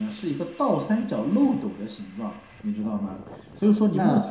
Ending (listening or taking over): listening